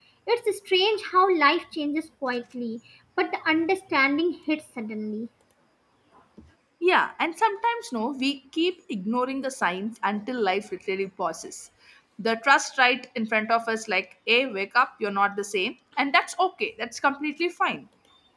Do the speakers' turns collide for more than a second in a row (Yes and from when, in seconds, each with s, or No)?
No